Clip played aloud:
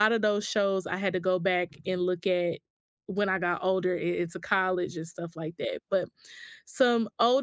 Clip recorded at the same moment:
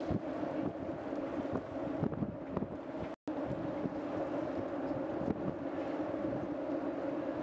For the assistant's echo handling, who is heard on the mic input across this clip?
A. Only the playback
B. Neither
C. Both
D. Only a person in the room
B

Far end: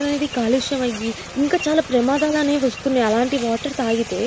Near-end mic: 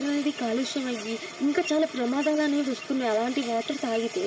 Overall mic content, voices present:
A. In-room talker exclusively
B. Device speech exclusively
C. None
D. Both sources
B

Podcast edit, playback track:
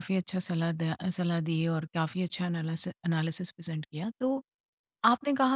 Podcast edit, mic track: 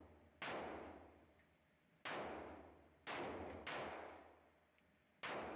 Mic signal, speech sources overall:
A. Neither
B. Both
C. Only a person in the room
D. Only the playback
A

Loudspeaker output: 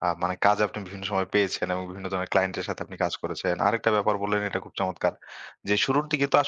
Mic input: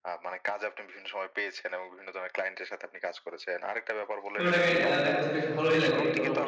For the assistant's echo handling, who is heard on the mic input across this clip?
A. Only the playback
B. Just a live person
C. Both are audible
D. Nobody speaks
C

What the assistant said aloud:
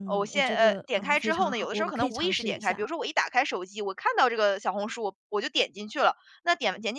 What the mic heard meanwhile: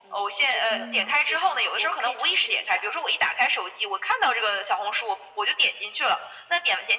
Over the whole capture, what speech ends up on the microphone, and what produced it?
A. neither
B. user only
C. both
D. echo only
C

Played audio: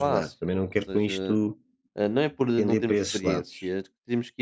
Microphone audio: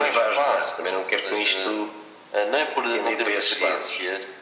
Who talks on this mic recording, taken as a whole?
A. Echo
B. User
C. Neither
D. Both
A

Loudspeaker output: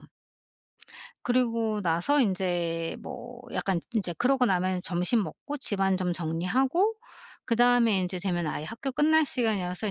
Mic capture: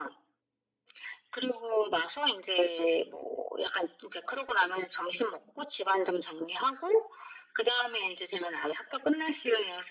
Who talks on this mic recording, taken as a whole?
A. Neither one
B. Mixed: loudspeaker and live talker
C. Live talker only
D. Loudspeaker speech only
D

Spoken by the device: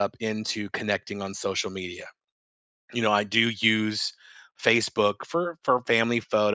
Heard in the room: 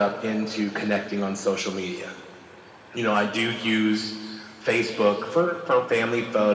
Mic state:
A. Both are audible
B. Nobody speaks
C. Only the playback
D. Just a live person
C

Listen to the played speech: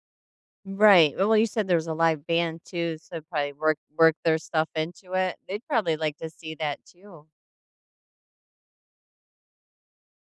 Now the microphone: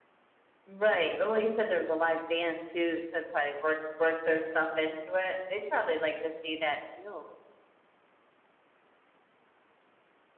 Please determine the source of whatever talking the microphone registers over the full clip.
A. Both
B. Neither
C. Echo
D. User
C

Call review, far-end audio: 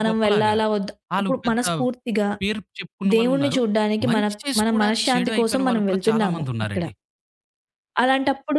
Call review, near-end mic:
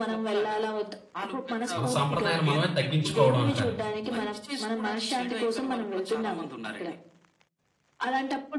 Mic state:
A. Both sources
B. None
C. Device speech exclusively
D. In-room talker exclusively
A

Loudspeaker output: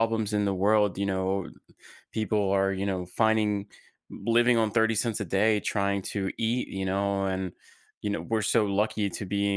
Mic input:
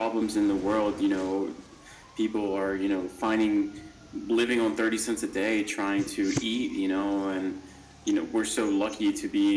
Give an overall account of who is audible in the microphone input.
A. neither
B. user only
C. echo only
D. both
C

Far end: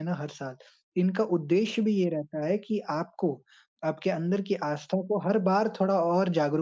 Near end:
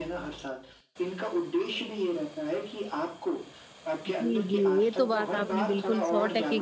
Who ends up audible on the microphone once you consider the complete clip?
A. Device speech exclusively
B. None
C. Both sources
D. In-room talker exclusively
C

